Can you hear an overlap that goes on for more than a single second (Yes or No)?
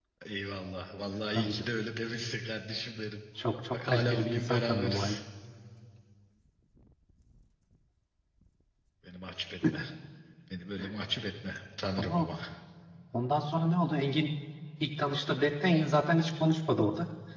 Yes